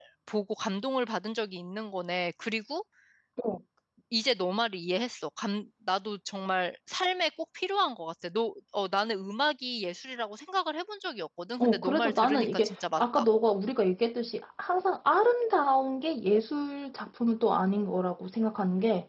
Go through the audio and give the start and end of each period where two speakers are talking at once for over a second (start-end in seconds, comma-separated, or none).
11.6-13.2